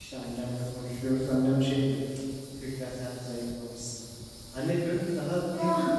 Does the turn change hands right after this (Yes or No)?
No